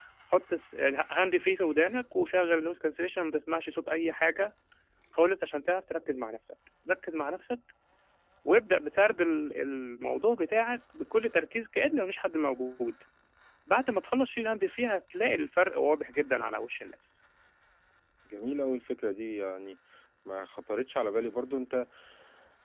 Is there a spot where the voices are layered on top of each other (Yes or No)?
No